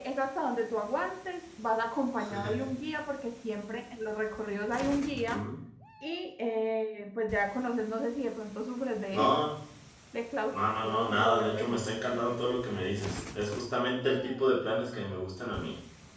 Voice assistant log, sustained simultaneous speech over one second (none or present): present